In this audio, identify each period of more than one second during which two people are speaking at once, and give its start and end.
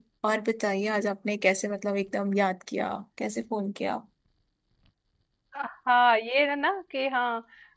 none

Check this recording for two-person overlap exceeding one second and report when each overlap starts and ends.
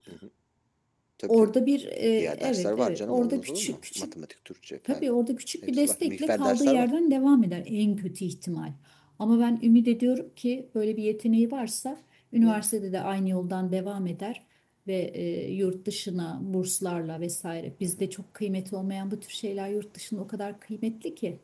2.2-4.1, 5.6-6.9

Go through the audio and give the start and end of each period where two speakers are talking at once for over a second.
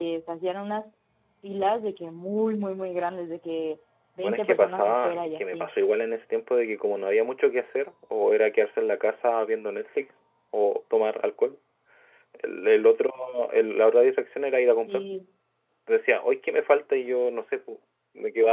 4.2-5.7

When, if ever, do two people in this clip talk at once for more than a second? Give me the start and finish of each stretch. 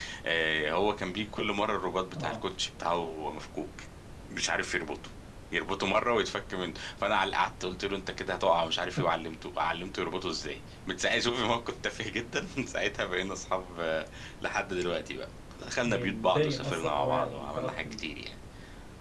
15.8-18.0

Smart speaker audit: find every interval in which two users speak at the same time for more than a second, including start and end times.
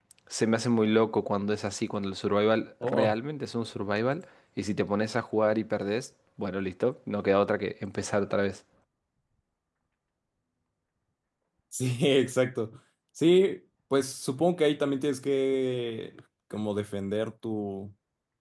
none

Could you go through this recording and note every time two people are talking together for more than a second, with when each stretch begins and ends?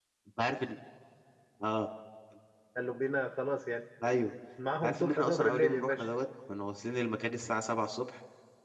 4.8-6.1

